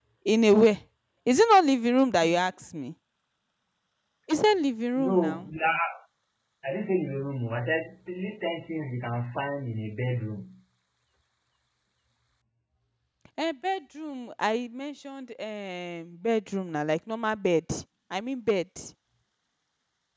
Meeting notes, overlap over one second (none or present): none